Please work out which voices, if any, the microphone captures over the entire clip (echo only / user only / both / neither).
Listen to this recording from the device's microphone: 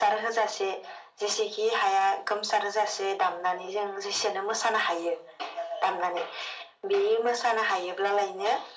echo only